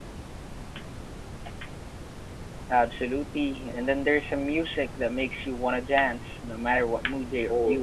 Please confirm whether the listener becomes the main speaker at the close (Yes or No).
Yes